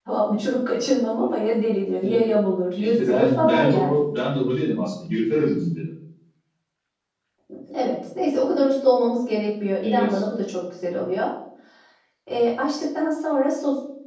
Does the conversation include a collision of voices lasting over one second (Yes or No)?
Yes